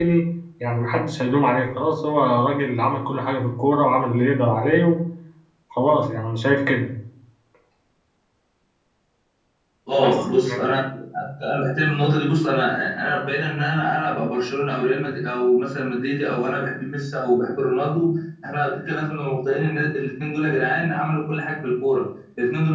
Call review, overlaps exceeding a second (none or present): none